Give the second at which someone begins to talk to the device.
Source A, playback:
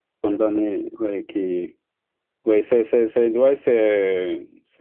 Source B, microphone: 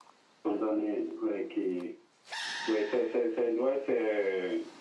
none

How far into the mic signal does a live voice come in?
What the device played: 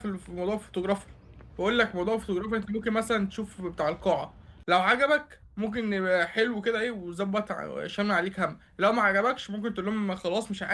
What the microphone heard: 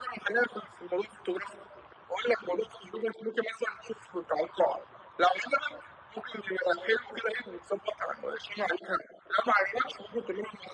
none

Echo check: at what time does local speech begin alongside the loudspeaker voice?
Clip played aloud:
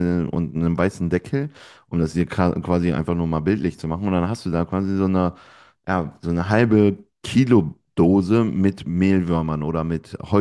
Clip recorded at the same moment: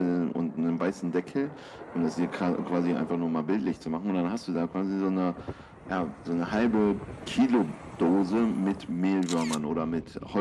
none

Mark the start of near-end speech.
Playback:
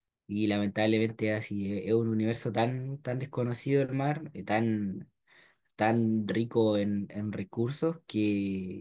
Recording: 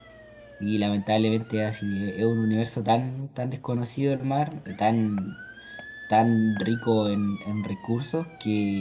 none

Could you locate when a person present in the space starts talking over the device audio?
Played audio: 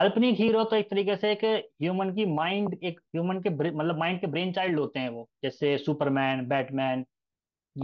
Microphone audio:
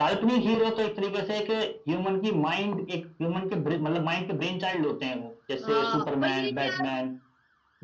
6 s

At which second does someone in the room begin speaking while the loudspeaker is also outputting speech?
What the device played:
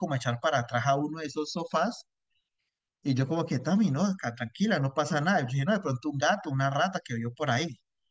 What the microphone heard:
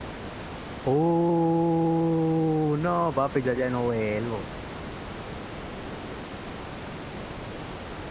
1 s

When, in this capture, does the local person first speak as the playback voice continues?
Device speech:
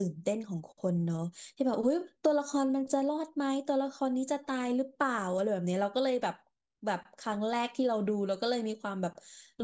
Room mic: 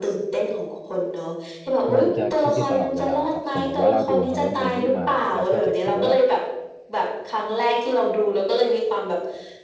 2 s

